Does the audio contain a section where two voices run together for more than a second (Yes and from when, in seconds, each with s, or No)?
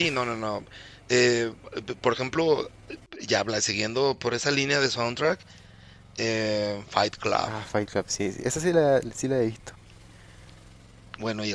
No